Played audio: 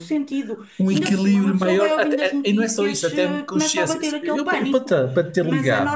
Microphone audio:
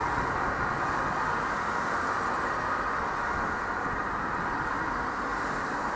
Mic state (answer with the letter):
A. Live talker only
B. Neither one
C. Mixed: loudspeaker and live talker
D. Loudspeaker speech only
B